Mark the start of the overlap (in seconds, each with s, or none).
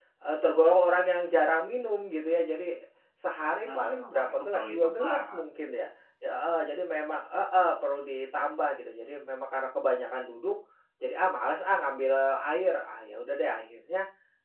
3.6 s